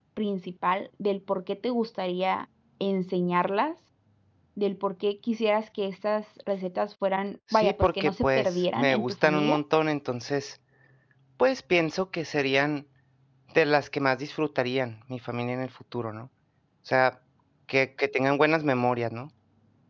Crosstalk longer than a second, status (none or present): present